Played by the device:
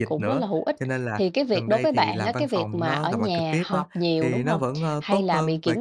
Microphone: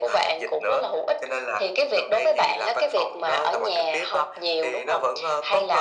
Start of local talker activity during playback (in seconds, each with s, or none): none